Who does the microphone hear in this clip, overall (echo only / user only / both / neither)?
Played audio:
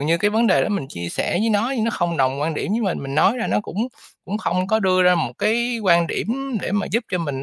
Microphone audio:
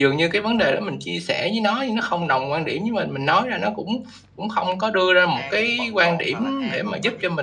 both